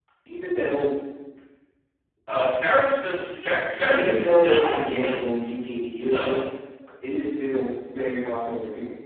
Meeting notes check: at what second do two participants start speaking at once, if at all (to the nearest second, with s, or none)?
4 s